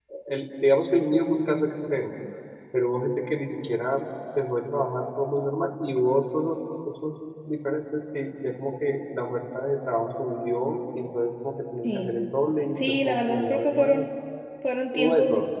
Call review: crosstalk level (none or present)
present